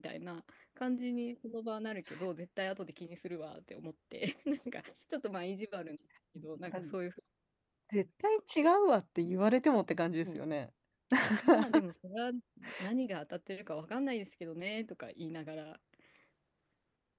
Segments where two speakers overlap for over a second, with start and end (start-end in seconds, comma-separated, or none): none